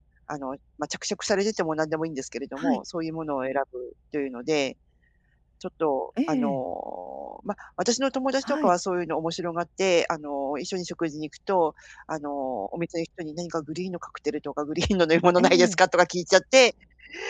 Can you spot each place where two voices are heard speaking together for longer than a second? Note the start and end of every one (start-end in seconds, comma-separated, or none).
none